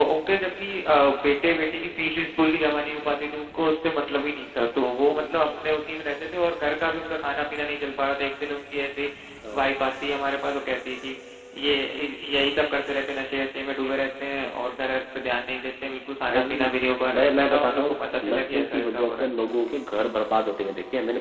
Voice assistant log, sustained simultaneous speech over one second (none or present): present